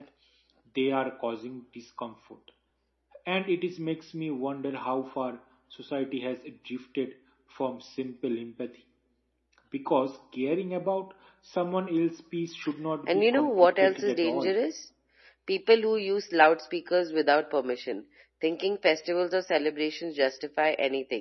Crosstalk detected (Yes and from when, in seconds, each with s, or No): Yes, from 13.1 s